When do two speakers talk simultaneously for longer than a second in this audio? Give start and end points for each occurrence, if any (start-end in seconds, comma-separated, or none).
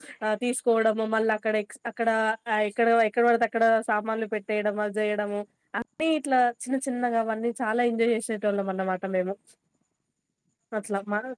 none